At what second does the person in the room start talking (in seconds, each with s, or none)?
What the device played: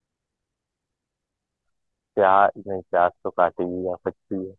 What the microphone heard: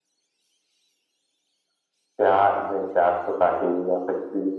none